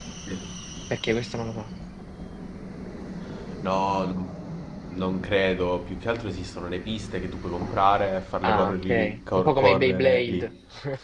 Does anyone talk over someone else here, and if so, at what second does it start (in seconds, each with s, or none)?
8.4 s